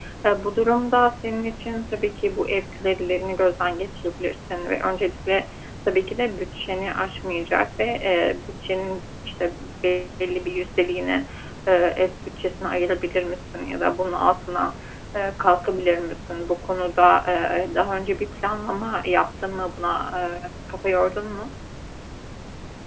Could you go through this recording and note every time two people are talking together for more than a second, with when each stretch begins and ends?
none

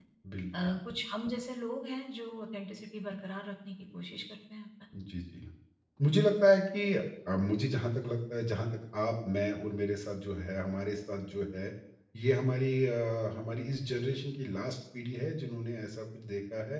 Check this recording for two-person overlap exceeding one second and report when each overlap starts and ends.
none

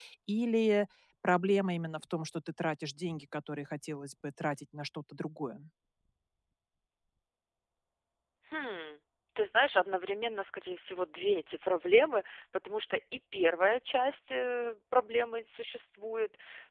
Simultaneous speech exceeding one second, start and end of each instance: none

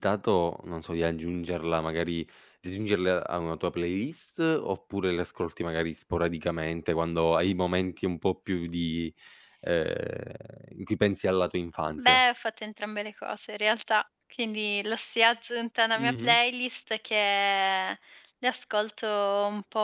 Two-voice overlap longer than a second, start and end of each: none

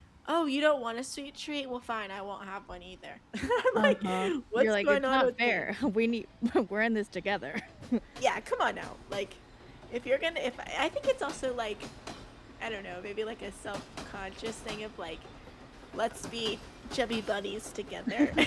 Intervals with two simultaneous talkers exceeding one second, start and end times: 3.7-5.7

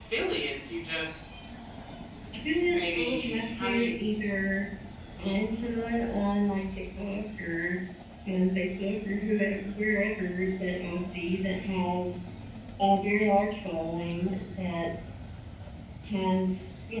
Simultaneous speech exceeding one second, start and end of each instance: 2.7-4.0

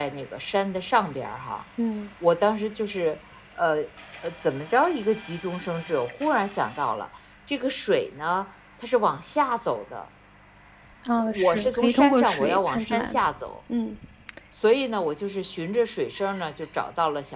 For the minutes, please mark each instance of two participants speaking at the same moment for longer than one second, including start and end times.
11.3-13.2

